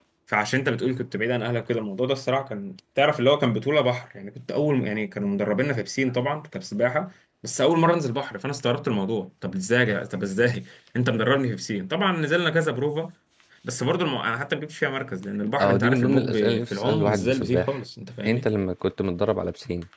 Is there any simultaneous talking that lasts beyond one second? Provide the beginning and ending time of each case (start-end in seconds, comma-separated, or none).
15.6-17.8